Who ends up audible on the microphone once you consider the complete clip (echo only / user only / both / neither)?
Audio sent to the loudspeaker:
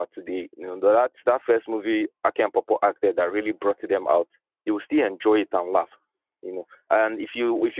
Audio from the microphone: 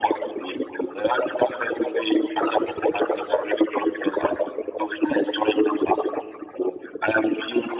echo only